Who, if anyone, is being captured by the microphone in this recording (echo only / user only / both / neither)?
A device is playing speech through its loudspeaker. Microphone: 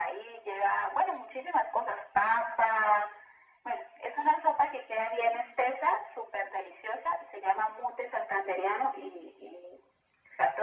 echo only